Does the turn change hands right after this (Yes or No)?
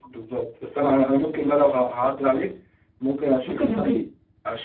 No